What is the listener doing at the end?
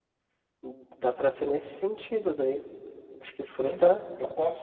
taking over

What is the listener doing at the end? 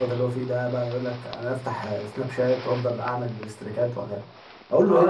taking over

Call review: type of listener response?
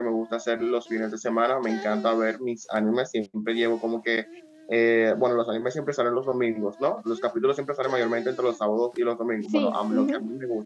listening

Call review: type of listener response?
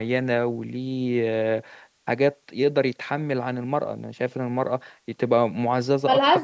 taking over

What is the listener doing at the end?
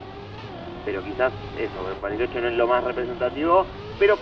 listening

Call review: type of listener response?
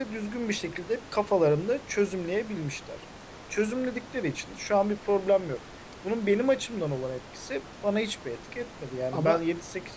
listening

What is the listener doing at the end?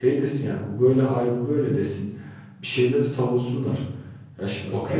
listening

